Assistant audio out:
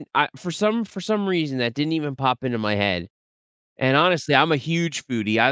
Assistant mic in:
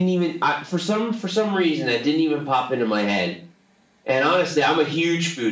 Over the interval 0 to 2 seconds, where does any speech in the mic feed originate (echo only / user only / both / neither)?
echo only